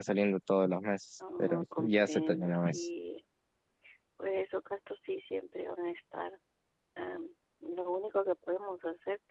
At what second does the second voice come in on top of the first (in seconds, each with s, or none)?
1.2 s